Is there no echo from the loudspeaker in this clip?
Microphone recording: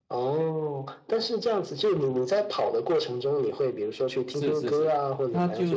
No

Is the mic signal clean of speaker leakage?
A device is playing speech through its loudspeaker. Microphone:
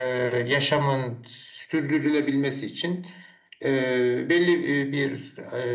No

